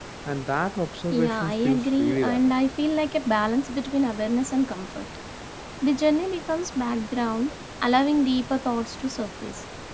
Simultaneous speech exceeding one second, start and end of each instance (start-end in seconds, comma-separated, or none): 1.1-2.5